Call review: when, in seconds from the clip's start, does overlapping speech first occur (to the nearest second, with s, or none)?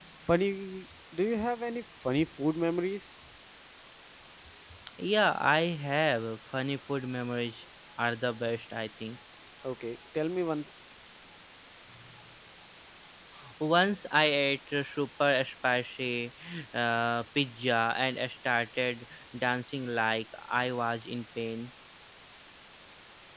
none